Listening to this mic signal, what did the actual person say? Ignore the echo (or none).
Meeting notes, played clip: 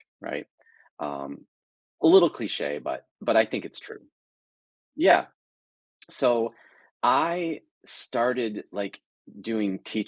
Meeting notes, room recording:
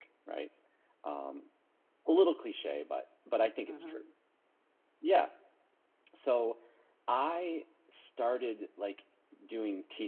Mhm.